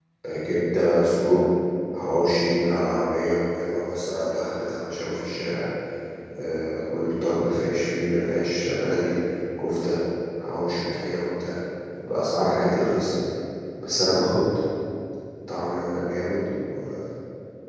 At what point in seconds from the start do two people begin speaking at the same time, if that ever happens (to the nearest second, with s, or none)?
none